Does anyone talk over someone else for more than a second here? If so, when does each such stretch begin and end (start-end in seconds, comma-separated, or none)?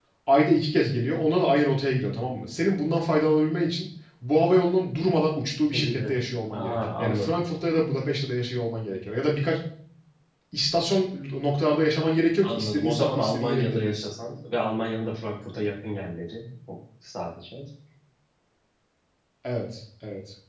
5.7-7.3, 12.4-14.1